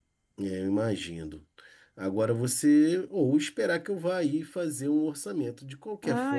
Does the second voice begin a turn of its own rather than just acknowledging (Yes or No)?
Yes